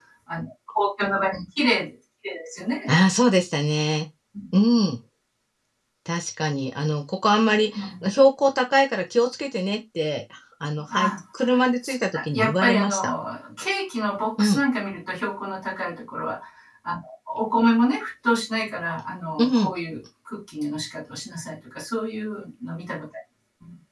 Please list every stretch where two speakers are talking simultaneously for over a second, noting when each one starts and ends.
11.6-13.1

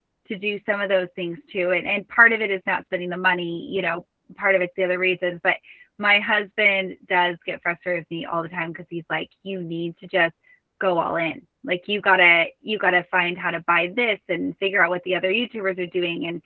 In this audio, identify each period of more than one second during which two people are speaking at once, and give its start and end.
none

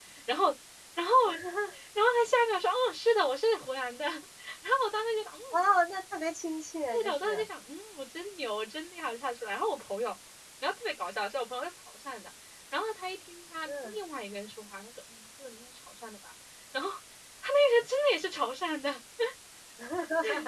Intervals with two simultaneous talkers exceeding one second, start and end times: none

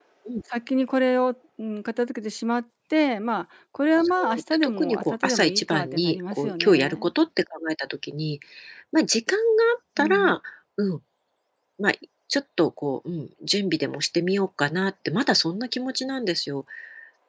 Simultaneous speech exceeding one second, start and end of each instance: 4.0-7.1

